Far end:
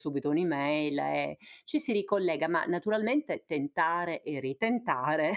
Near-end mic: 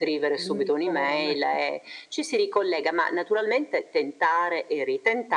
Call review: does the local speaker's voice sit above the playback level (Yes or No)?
No